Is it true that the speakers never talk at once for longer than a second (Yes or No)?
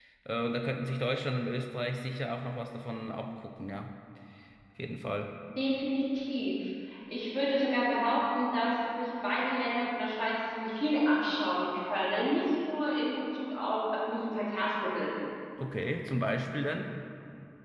Yes